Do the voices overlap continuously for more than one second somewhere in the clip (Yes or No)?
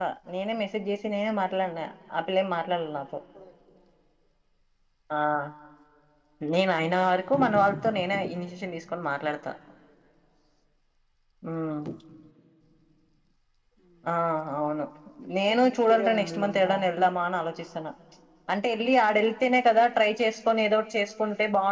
Yes